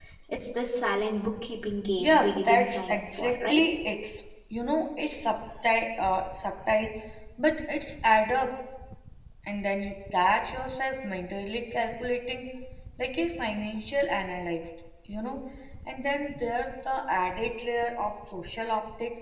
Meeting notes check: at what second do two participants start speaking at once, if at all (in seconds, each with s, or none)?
2.0 s